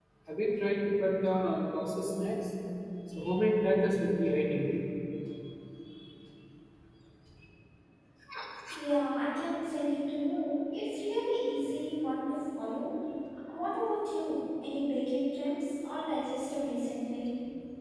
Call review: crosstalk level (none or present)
none